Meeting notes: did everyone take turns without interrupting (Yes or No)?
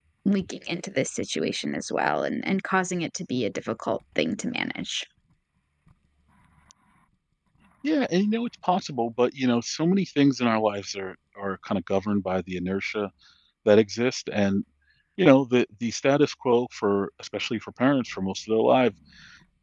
Yes